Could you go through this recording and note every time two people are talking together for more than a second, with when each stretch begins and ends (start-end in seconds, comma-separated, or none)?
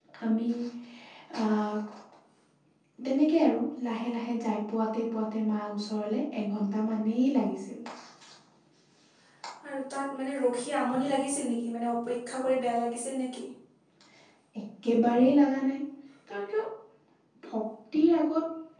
none